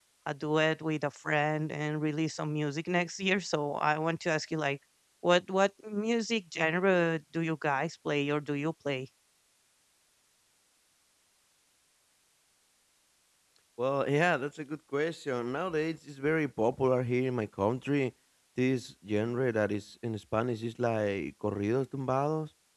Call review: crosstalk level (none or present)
none